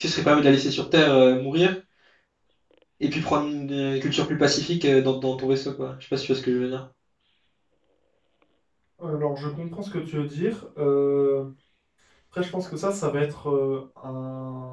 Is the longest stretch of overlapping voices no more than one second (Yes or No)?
Yes